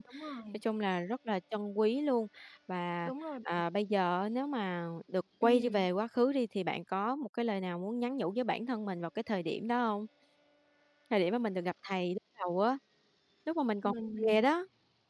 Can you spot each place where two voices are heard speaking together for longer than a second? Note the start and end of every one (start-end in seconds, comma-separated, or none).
none